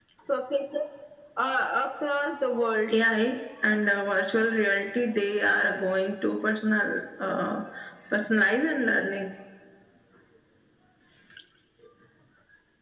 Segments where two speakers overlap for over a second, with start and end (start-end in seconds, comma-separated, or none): none